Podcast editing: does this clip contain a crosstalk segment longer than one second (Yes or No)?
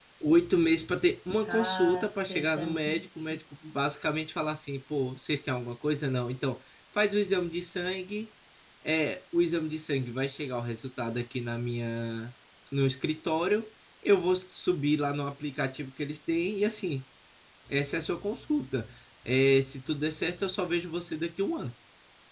Yes